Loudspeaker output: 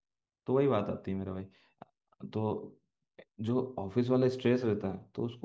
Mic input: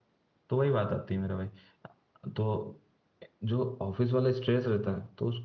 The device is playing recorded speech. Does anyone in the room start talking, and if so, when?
none

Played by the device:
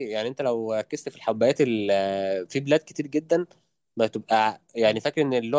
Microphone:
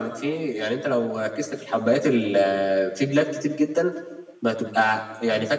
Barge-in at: none

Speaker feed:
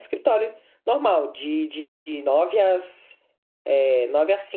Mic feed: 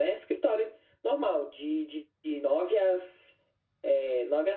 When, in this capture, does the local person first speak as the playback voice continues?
none

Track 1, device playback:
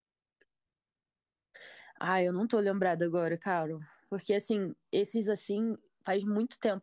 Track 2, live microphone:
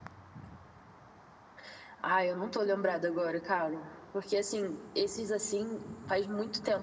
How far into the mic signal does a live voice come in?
none

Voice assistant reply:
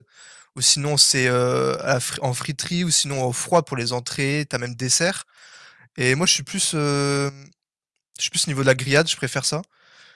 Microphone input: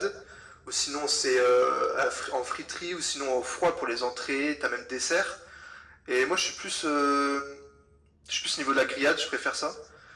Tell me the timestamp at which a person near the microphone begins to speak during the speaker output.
none

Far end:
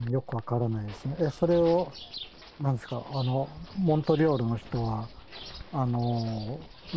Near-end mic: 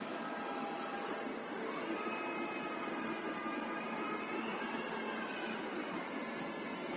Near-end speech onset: none

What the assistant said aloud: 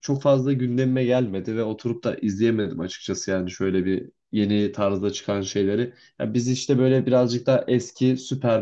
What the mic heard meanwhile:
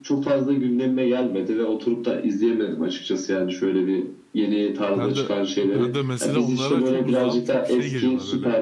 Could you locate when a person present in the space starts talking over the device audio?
5.0 s

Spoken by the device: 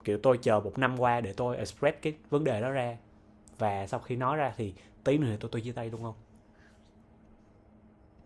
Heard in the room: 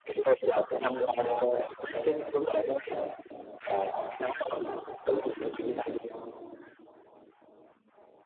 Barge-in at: none

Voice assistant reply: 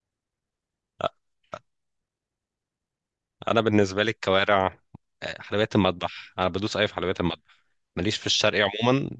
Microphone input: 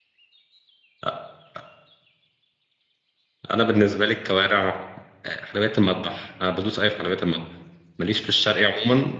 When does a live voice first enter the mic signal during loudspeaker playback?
none

